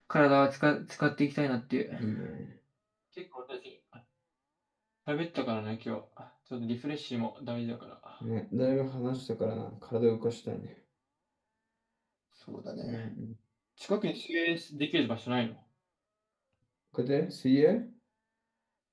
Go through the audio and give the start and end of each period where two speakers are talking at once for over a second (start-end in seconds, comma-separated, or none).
none